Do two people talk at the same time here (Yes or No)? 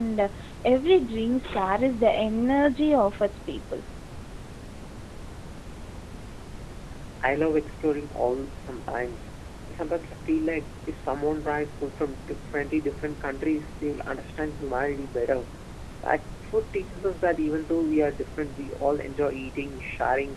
No